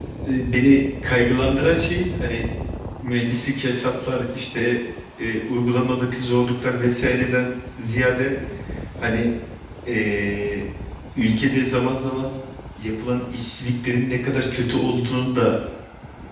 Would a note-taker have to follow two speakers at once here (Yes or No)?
No